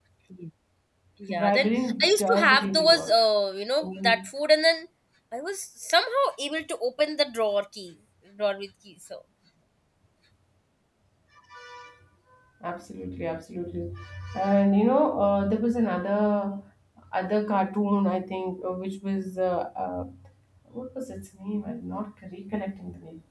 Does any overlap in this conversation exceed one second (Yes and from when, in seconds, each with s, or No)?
Yes, from 1.3 s